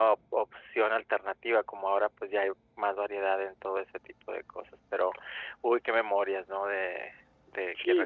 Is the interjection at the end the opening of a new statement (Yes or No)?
Yes